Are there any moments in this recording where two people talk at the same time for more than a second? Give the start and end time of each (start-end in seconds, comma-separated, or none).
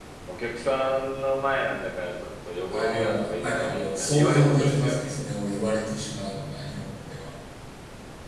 2.7-5.2